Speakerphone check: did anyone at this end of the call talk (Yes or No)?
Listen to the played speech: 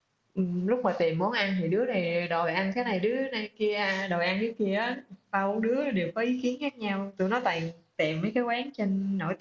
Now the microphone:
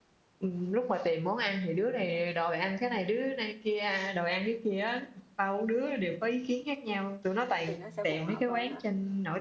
Yes